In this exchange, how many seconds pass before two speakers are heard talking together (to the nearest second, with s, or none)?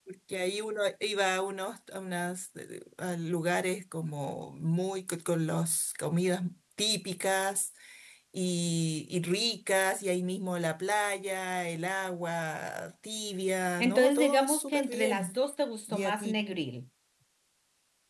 14 s